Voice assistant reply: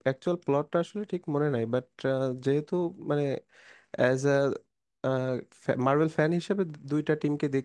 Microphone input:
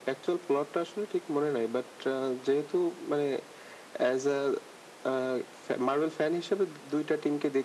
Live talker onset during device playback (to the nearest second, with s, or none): none